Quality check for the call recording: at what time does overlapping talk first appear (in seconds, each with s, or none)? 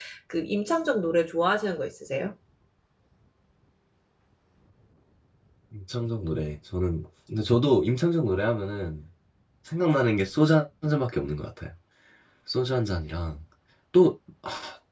none